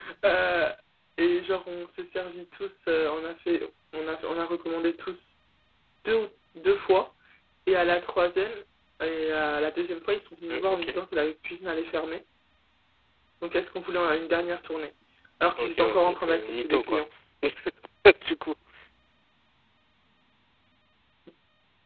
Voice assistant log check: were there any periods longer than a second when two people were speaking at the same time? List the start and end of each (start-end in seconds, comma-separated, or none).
15.6-17.0